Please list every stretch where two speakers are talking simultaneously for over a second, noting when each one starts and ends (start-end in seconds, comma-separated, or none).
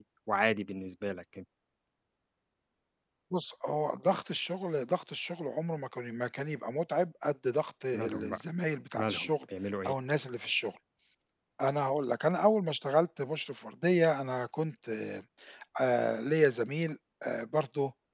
none